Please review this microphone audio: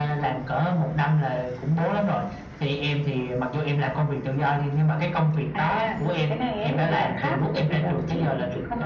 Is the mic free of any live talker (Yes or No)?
Yes